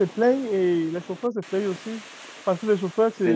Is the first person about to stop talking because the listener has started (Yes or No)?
No